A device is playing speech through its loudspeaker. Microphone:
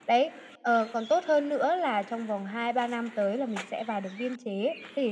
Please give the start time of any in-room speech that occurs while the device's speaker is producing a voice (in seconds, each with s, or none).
none